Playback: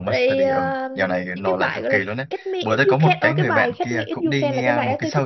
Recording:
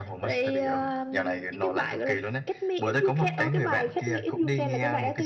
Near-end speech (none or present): none